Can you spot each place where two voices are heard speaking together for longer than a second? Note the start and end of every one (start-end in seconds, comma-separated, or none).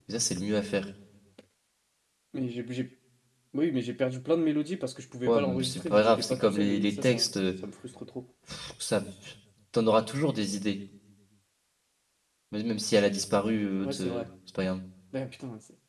5.2-7.3